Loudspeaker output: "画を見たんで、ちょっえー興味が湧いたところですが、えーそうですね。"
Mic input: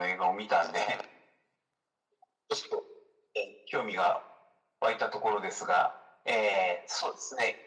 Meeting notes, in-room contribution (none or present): none